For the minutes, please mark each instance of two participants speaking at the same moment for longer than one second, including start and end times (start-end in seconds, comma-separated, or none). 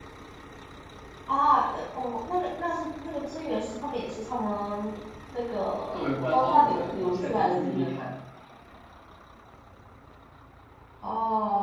5.9-8.0